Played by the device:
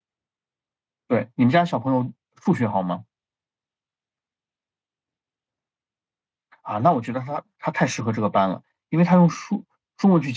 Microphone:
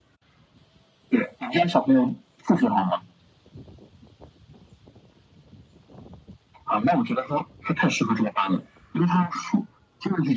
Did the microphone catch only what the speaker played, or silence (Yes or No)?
Yes